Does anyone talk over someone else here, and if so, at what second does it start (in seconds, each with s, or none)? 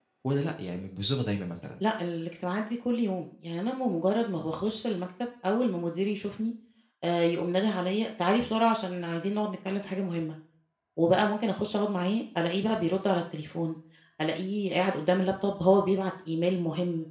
none